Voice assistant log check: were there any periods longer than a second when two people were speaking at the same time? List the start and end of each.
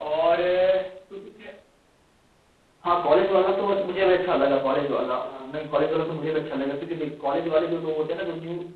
none

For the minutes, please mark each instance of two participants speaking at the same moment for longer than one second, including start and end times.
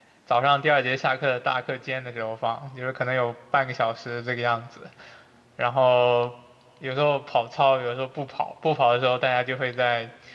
none

